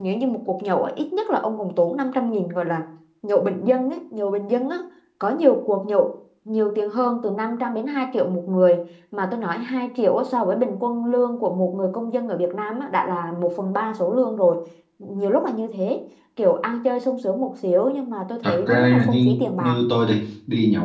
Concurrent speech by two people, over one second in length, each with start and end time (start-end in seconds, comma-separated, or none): 18.4-19.8